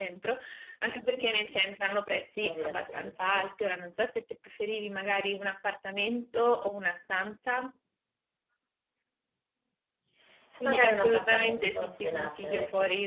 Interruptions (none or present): present